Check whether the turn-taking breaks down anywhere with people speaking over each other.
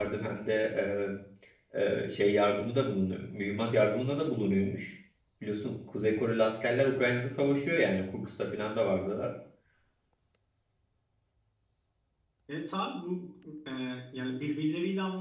No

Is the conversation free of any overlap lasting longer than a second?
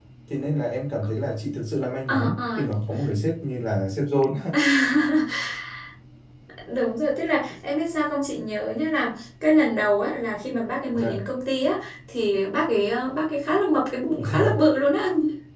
Yes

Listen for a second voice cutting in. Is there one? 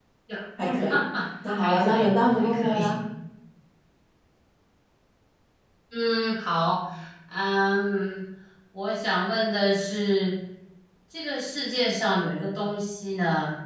Yes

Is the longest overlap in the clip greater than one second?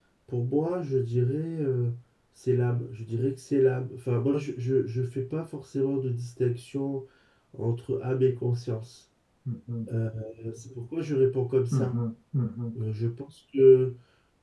No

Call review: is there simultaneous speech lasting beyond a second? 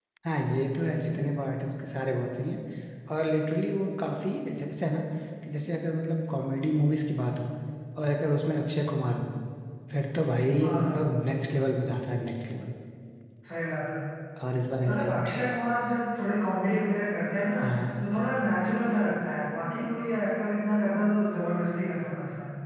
No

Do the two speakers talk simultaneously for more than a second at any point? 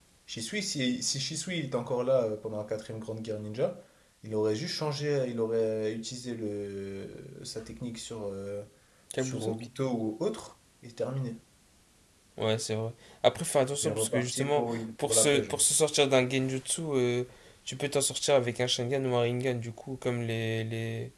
Yes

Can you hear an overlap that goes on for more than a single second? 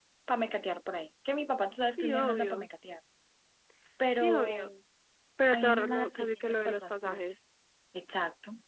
Yes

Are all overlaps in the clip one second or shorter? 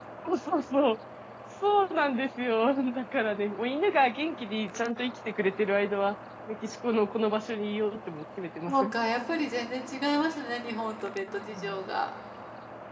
Yes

